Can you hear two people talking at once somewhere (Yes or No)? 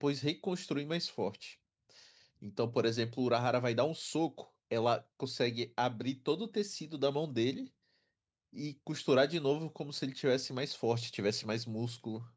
No